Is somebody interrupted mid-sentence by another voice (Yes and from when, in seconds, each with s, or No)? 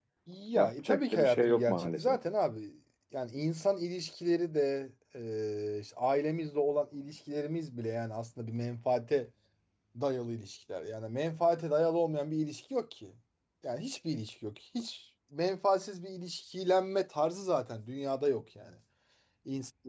Yes, from 0.6 s